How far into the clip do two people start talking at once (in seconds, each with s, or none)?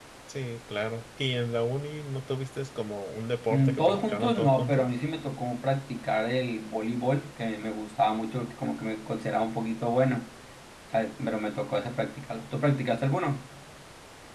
3.5 s